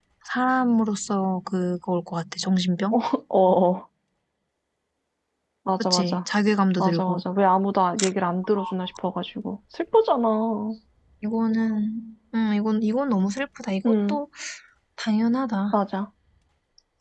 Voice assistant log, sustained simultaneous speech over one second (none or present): none